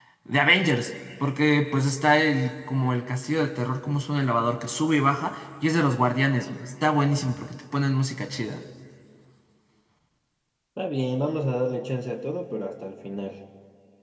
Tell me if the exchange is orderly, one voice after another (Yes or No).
Yes